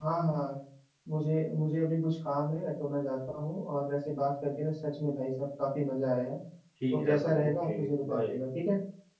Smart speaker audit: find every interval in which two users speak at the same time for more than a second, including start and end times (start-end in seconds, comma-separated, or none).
6.9-8.4